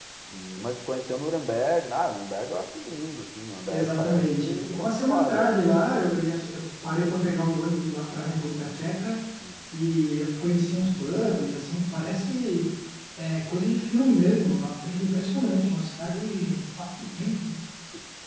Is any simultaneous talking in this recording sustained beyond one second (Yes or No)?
Yes